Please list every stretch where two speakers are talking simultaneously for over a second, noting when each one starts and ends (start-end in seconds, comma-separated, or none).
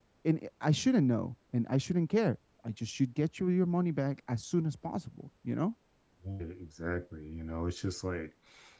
none